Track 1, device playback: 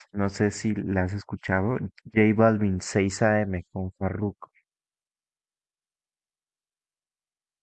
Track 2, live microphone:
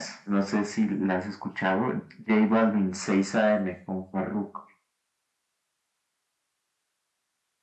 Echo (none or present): present